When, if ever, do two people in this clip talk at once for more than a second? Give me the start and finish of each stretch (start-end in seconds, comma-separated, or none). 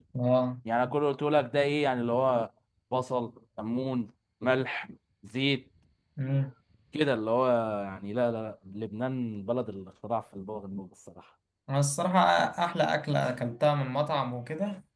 none